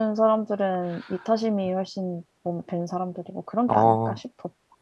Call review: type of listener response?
taking over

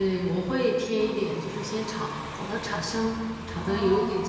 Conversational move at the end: listening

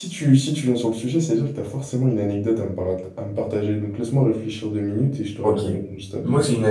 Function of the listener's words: taking over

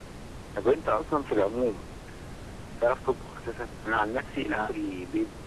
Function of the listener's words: listening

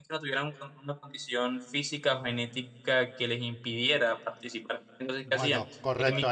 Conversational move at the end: taking over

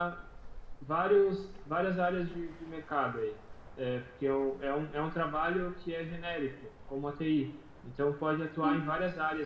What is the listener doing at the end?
listening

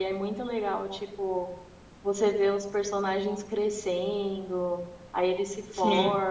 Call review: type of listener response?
listening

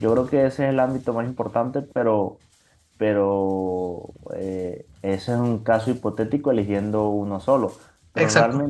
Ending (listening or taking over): listening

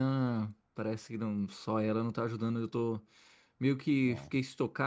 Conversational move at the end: listening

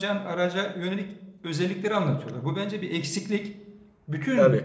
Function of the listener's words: listening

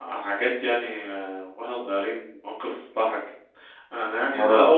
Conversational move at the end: listening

